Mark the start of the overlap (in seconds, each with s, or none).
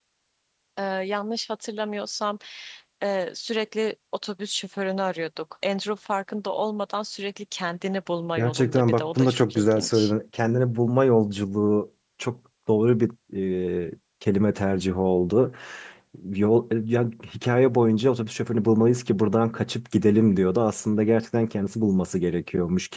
8.4 s